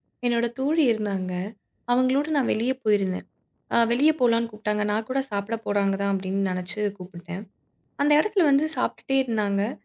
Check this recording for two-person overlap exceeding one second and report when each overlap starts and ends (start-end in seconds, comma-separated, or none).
none